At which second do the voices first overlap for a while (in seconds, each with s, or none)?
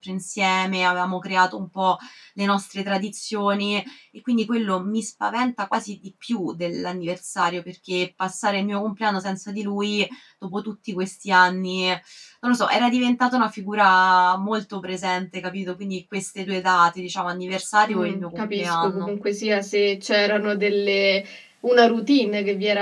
17.8 s